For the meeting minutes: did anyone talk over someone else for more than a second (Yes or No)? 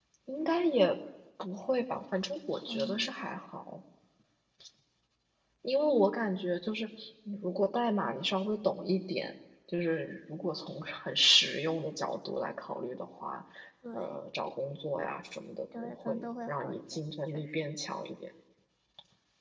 Yes